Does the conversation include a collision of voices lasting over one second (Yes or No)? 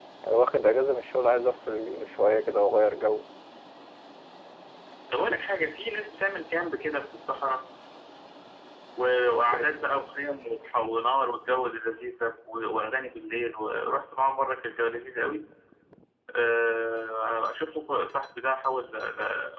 No